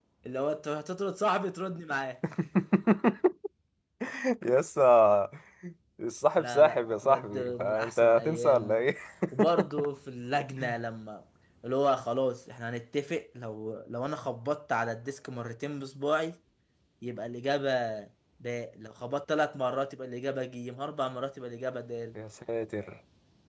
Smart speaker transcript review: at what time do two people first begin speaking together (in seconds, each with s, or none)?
6.4 s